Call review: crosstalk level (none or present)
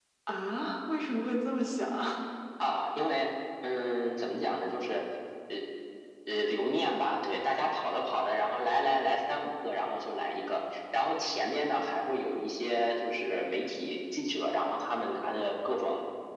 none